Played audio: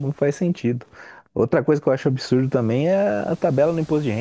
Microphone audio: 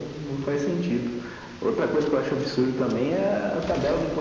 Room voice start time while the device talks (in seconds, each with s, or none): none